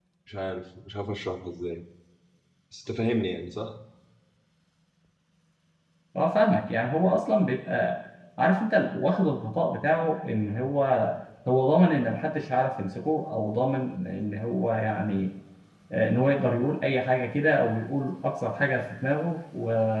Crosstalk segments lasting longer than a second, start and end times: none

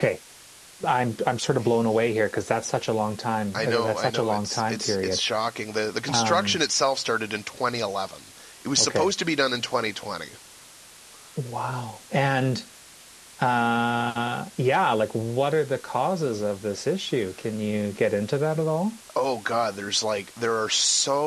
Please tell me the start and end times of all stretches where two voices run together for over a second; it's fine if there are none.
3.5-5.2

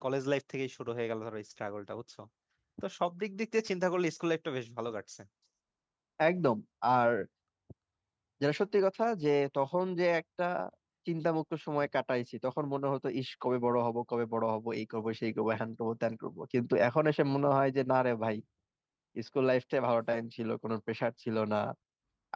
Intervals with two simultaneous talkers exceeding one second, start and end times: none

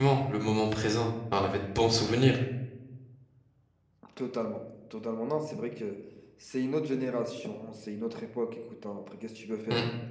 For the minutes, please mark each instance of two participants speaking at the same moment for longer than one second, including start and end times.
none

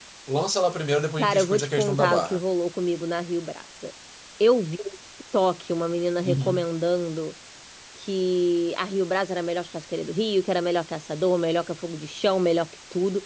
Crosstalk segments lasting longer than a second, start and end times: 1.2-2.4

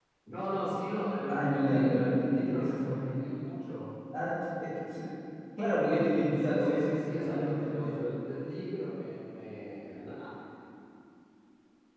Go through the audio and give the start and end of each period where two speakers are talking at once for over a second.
1.3-3.2, 6.4-7.9

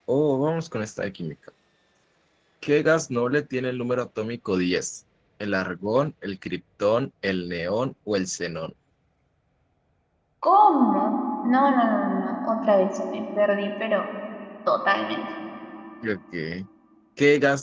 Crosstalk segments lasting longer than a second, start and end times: none

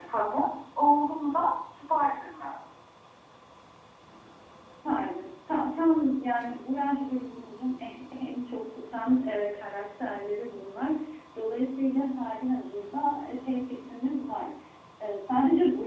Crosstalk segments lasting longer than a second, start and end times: none

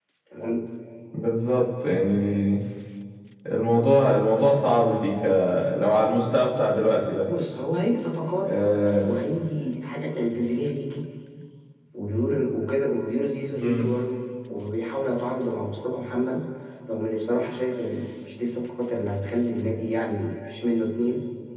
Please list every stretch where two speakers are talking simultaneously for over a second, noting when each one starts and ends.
none

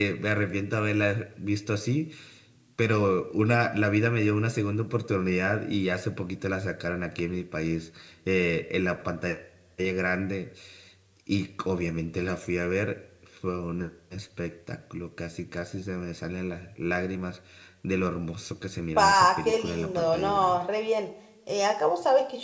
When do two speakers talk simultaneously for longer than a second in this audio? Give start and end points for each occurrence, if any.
19.0-20.6

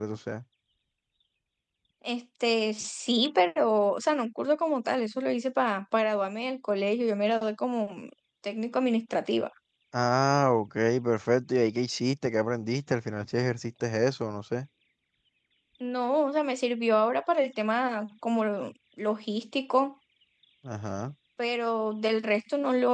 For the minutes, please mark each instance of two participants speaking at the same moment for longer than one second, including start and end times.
none

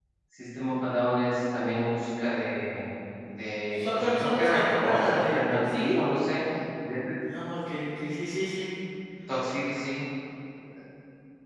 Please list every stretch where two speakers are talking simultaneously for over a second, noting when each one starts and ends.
3.7-6.0

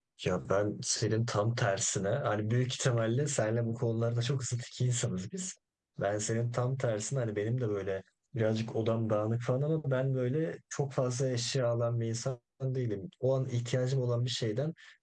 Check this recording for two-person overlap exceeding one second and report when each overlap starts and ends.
none

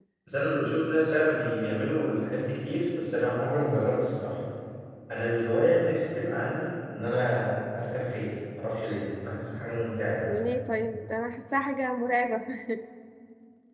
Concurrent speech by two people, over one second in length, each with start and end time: none

